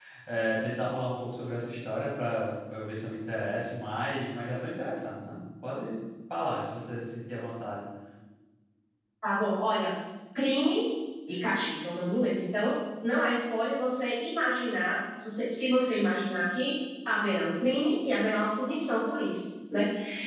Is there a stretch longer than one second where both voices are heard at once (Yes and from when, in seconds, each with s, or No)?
No